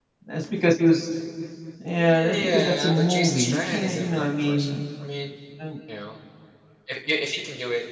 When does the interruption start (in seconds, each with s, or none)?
1.9 s